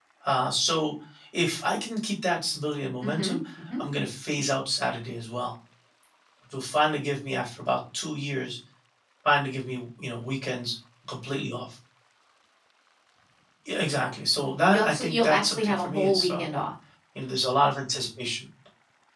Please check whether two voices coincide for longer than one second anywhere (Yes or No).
Yes